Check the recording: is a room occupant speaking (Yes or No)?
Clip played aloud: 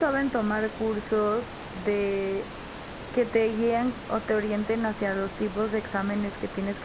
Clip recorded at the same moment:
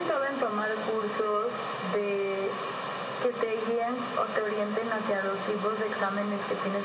No